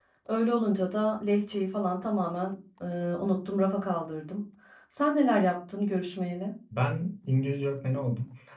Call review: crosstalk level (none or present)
none